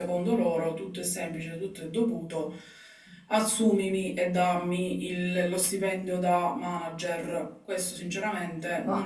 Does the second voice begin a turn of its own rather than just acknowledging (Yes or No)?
Yes